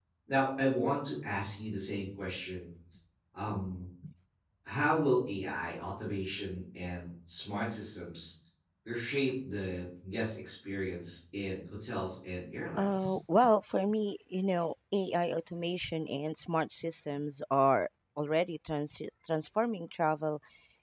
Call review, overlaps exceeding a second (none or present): none